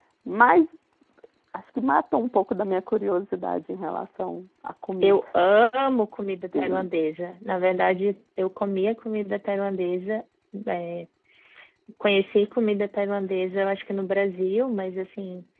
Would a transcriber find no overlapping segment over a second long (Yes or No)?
Yes